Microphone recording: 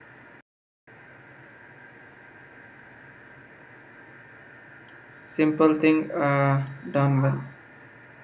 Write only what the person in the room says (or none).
simple thing uh, done well.